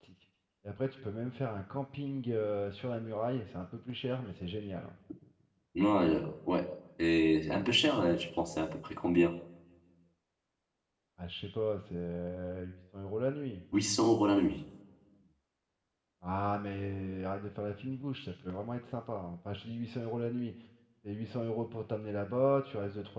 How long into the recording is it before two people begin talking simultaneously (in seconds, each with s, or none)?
none